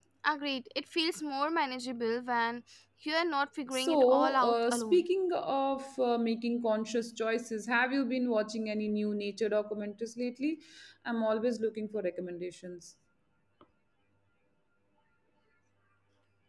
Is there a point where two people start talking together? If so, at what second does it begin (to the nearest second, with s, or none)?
4 s